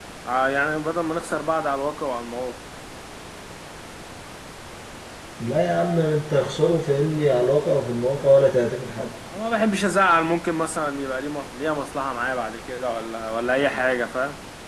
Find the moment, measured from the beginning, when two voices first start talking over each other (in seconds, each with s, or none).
none